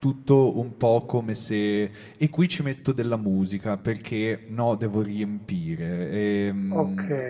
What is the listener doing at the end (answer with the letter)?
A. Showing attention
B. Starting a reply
A